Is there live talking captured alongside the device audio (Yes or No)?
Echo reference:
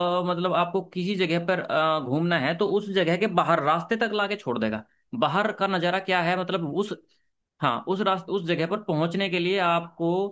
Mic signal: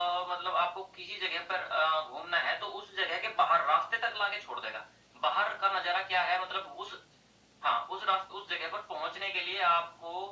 No